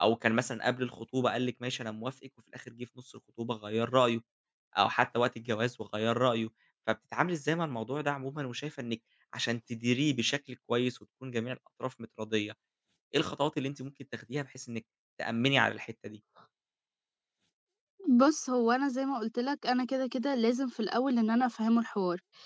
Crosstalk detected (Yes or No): No